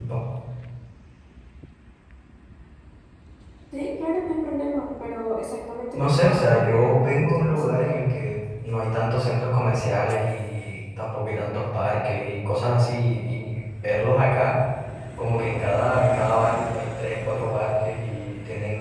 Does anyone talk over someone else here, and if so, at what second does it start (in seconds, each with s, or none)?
5.9 s